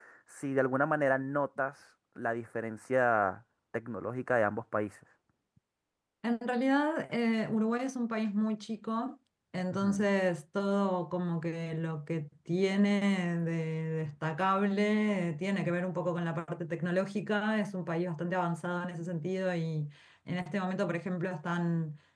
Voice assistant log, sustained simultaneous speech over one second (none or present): none